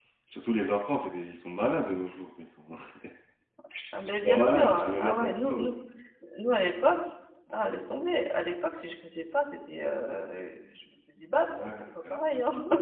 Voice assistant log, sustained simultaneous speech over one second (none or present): present